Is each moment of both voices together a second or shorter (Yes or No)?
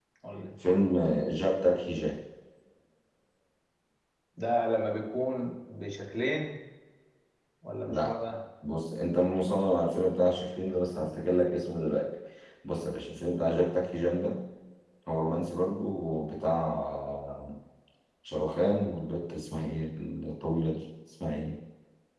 Yes